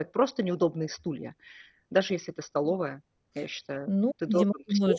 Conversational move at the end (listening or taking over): taking over